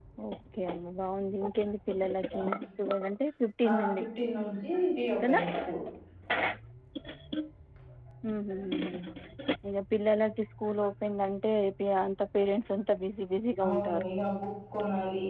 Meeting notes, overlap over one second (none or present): none